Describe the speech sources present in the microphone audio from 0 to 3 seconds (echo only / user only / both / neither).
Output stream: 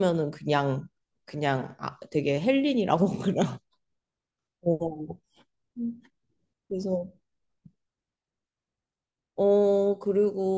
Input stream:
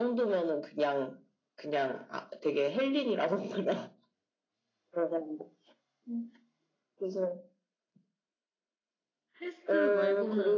echo only